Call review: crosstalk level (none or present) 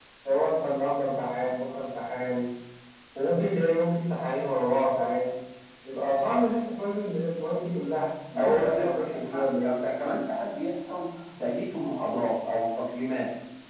present